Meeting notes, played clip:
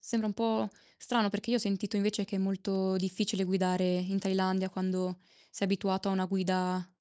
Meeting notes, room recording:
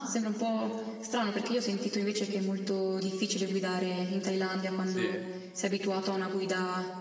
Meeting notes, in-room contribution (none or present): present